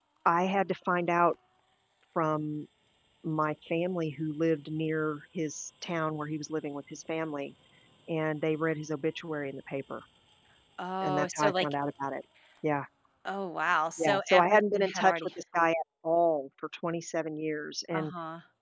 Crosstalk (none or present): present